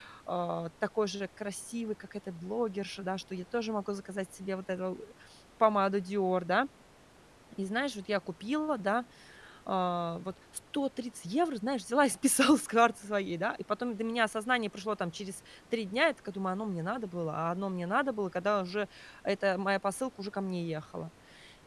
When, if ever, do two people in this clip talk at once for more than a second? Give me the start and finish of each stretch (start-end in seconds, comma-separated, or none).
none